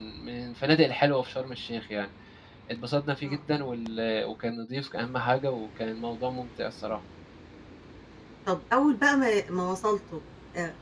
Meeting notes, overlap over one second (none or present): none